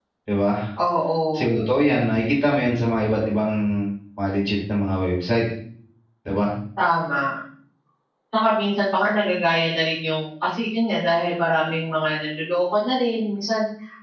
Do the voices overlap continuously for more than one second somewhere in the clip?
No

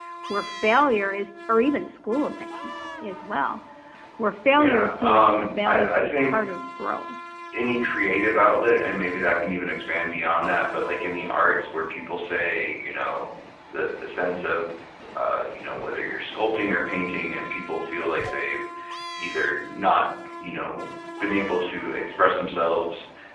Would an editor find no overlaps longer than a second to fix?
No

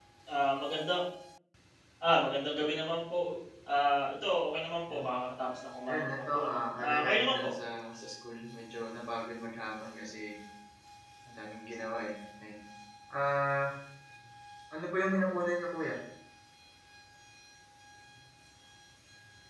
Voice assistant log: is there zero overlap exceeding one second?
No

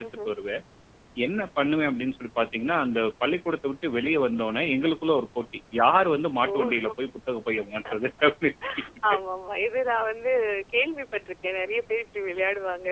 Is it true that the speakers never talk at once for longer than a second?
Yes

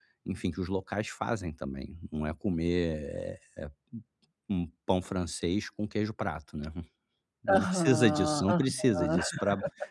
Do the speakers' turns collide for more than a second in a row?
Yes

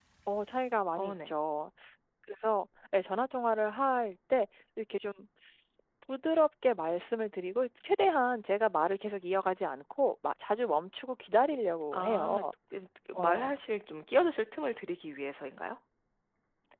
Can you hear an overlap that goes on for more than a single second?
No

